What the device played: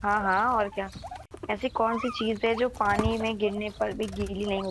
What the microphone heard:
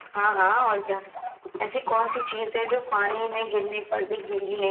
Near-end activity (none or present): none